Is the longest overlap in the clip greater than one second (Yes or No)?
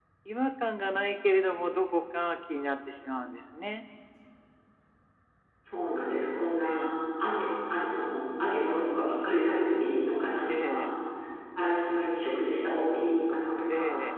No